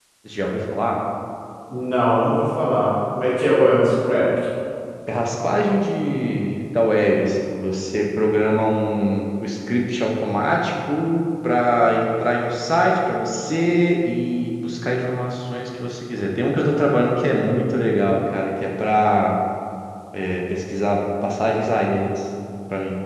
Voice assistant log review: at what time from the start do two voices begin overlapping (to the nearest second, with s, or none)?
none